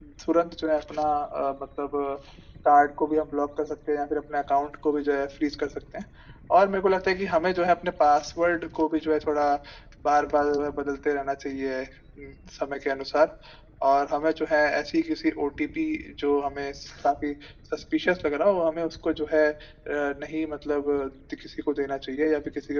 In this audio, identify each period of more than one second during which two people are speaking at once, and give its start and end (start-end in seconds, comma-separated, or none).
none